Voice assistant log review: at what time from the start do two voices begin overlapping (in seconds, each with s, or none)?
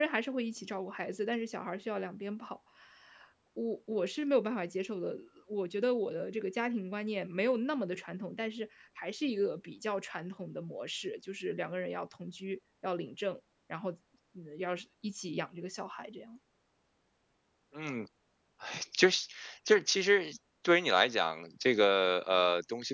none